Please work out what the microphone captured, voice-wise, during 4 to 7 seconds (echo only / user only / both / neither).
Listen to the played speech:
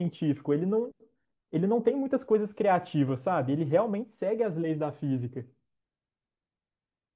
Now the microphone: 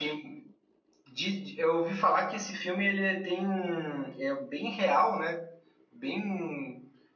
user only